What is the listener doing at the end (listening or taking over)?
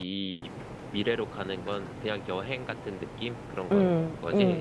taking over